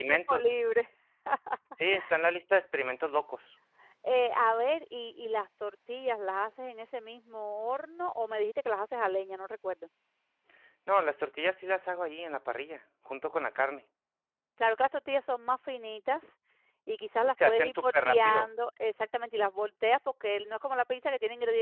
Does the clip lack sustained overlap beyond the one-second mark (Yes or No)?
No